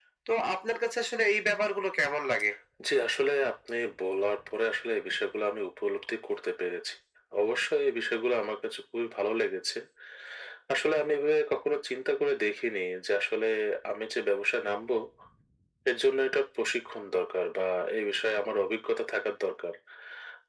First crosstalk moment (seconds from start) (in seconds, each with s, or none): none